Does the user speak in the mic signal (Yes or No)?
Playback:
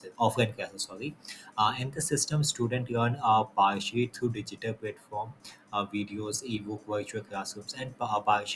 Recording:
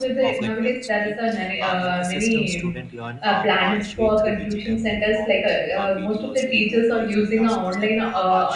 Yes